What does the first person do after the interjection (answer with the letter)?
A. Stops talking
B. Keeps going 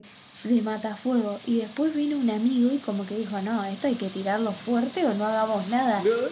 B